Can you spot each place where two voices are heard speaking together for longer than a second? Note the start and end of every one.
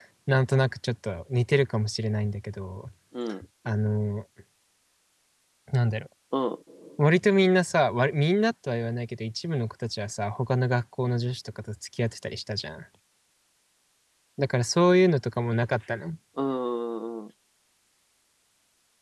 none

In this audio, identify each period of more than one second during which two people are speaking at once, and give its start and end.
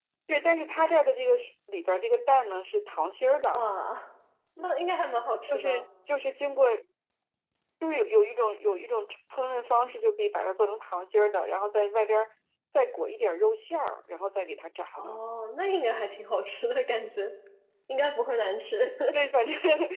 none

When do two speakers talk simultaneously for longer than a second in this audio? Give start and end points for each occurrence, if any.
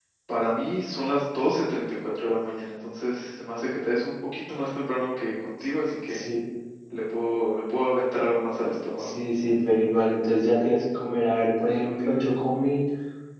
none

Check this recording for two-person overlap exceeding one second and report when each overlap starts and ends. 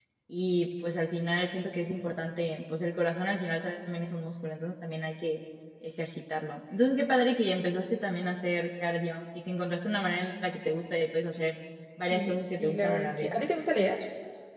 12.1-13.3

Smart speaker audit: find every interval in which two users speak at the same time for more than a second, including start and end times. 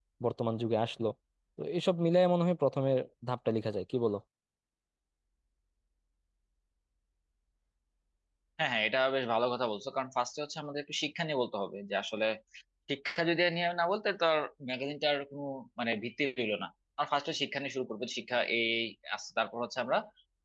none

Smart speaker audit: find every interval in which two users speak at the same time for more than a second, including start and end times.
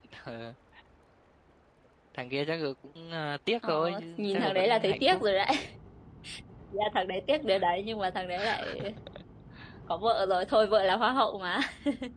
3.7-5.2

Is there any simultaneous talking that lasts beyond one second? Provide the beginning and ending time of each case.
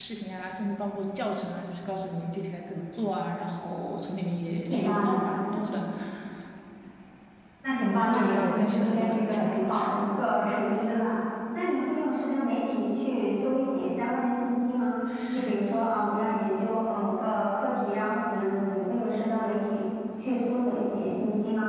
8.1-9.8

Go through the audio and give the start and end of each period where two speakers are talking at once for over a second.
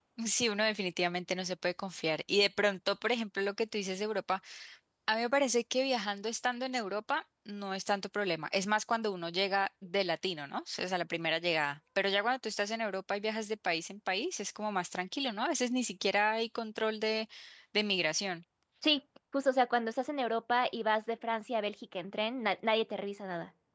none

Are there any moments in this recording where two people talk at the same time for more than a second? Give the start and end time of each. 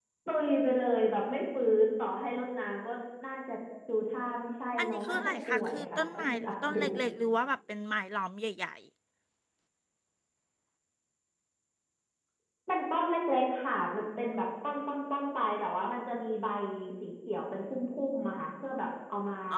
4.8-6.8

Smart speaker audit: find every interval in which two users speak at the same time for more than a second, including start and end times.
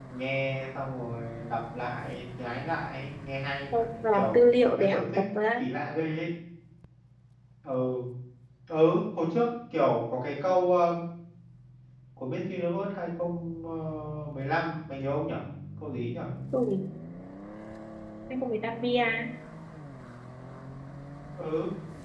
3.9-5.6

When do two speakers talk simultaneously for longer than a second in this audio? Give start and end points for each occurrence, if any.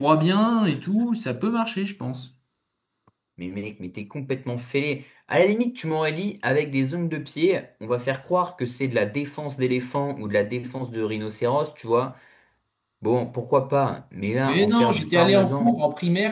14.5-15.7

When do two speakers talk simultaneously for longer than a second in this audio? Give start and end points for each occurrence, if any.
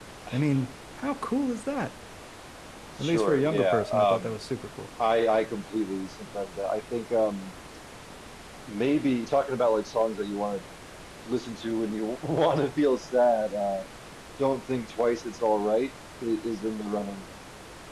3.0-4.3

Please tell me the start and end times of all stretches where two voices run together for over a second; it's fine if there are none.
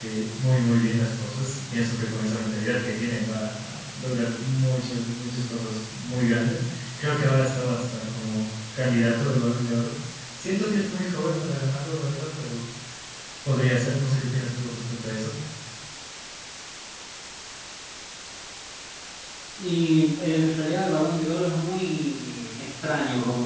none

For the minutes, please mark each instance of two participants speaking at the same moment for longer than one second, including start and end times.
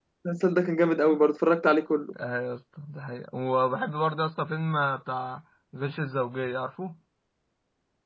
none

